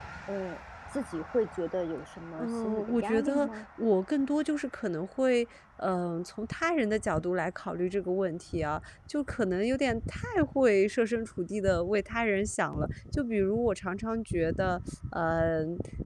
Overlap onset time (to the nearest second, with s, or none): 2 s